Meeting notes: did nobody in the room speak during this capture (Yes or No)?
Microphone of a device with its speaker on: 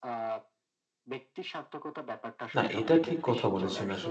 No